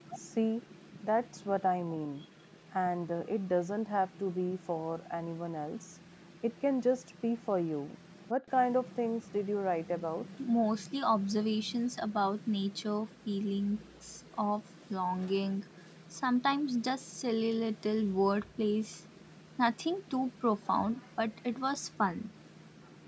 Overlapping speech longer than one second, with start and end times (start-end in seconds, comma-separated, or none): none